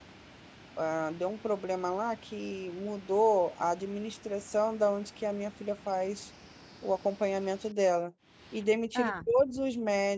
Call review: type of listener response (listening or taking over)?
listening